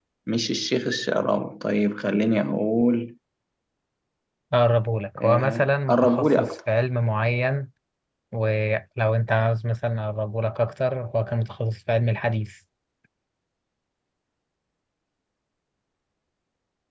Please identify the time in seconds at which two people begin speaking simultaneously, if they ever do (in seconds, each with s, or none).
5.2 s